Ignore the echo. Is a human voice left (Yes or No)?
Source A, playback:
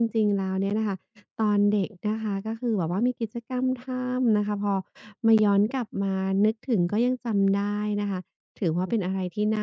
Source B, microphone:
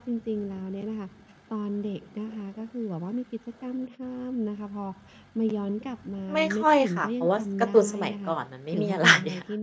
Yes